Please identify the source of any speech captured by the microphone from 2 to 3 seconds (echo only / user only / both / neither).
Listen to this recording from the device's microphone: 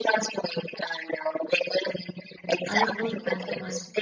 both